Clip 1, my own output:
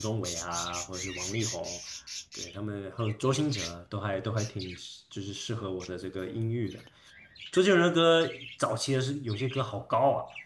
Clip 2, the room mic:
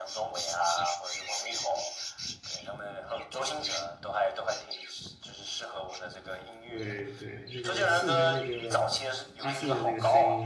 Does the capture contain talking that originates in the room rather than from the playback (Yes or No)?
Yes